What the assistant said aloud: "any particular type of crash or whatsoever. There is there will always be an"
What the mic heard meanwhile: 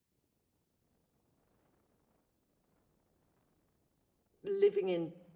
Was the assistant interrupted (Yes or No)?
Yes